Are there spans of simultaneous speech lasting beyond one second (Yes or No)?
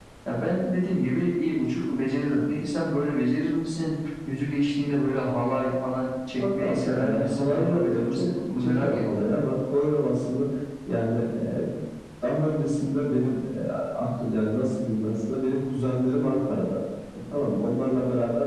Yes